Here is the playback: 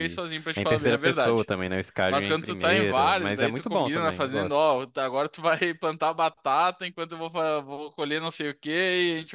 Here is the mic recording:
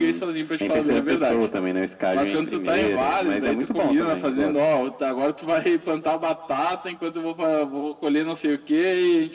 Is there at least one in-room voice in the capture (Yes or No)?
No